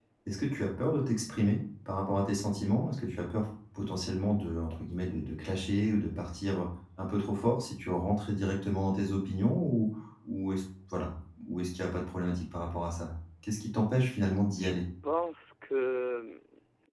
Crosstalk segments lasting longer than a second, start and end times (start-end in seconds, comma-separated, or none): none